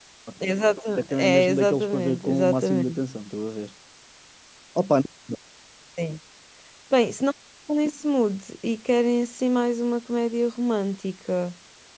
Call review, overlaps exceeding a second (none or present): present